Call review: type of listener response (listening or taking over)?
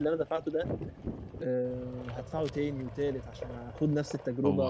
taking over